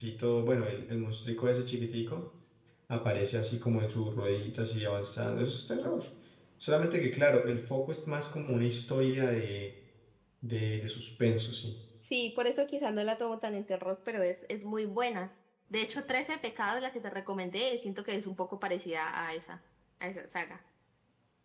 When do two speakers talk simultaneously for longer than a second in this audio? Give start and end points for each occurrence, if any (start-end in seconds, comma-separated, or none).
none